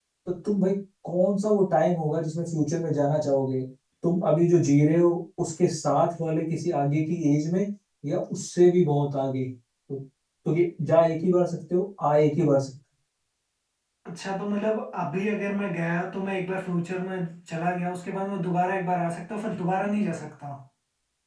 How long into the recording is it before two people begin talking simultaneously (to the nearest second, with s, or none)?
none